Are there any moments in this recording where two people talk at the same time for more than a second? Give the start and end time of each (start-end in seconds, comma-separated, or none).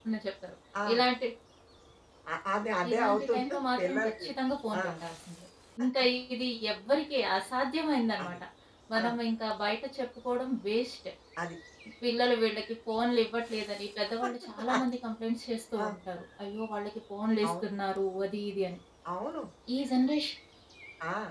2.9-4.3